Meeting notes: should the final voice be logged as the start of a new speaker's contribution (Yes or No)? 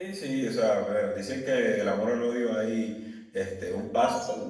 No